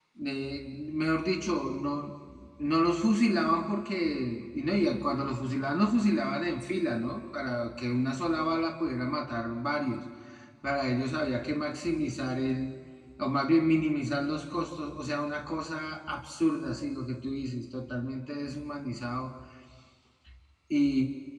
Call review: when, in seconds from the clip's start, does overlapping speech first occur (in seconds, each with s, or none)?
none